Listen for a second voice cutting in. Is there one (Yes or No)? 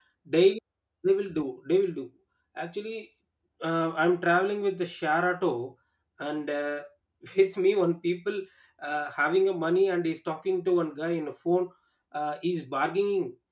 No